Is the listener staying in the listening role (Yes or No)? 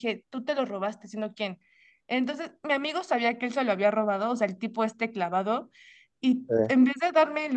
Yes